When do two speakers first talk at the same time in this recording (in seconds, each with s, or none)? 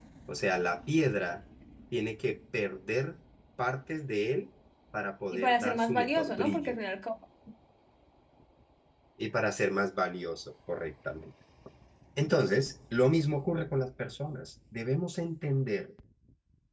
5.3 s